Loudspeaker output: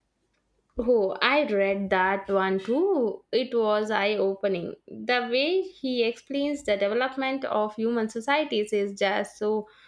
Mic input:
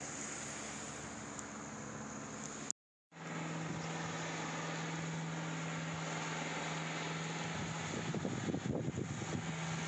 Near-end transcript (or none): none